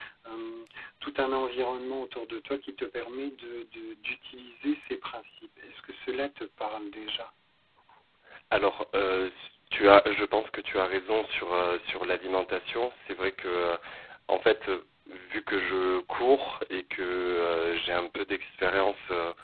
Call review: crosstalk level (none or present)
none